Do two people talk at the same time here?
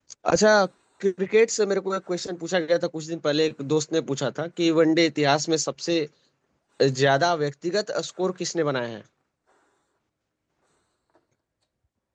No

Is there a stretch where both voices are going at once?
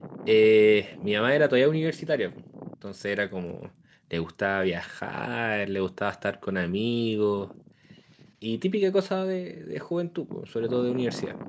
No

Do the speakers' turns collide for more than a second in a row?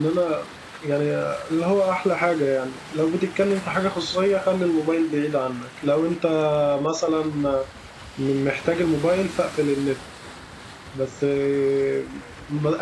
No

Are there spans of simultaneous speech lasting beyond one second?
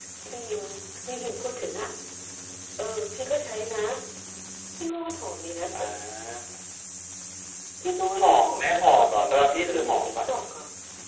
Yes, from 8.2 s

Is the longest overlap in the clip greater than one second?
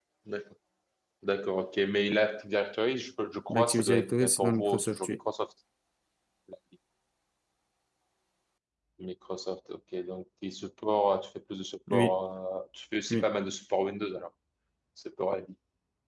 Yes, from 3.5 s

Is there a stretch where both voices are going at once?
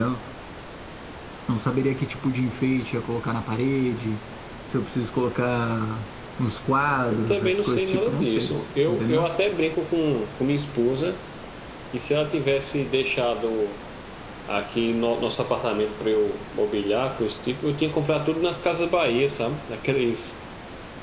Yes, from 7.1 s

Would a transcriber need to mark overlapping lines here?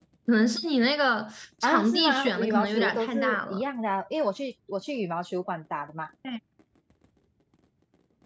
Yes, from 1.6 s

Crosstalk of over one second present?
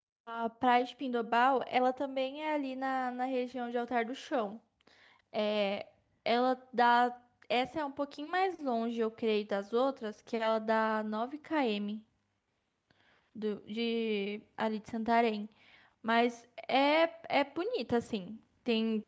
No

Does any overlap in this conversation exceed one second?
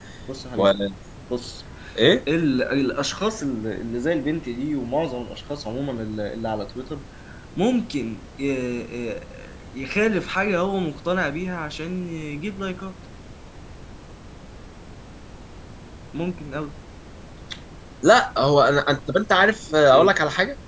No

